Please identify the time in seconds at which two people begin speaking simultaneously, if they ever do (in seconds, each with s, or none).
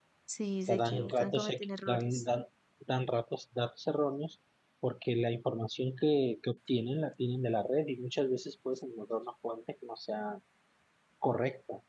0.6 s